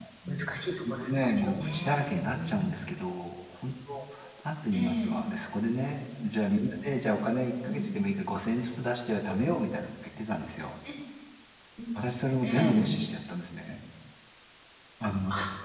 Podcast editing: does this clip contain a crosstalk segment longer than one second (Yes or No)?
Yes